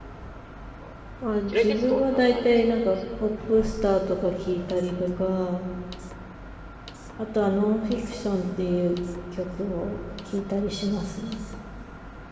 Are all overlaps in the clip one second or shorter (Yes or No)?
No